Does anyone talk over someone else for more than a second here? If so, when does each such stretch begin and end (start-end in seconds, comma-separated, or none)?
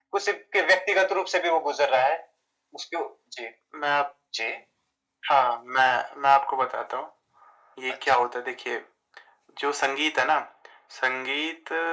none